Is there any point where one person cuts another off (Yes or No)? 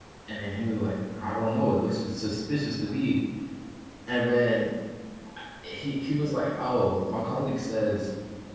No